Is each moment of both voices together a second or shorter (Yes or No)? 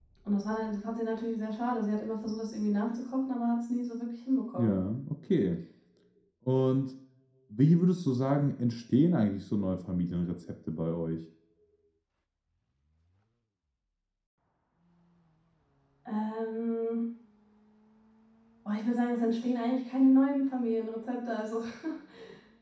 Yes